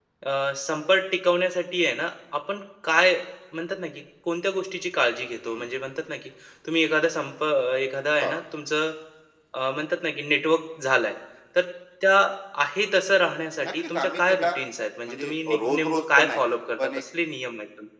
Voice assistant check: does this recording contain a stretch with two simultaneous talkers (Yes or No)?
Yes